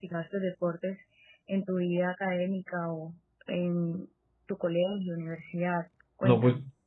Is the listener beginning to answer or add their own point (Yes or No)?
Yes